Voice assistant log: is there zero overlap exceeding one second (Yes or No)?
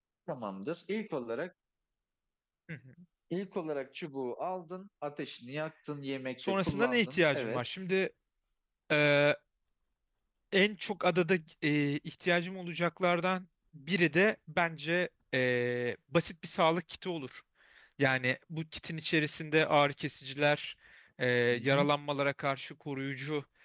No